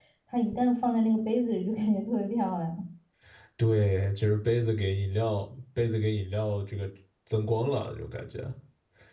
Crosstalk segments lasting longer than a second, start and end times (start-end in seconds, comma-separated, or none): none